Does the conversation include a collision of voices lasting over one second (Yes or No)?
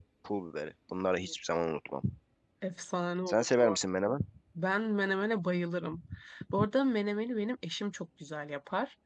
No